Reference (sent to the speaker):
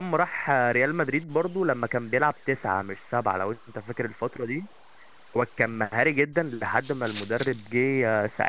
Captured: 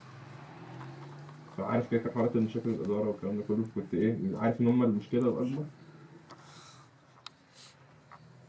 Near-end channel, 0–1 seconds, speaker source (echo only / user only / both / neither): neither